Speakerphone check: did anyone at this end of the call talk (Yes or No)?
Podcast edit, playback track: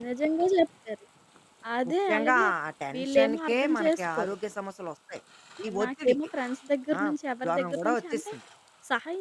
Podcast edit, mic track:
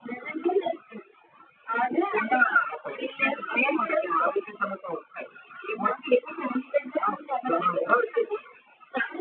No